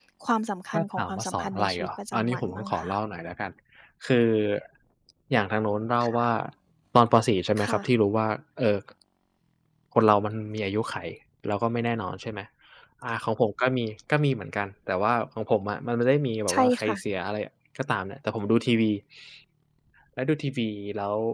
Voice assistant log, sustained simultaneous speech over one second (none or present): present